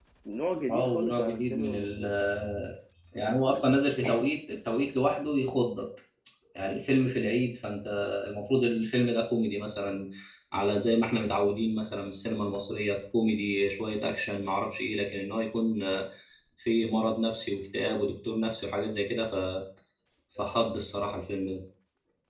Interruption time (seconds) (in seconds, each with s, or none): 0.7 s